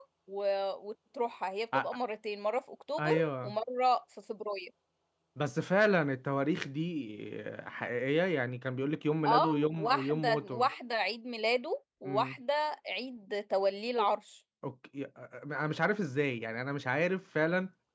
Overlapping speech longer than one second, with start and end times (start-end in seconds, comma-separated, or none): 9.2-10.7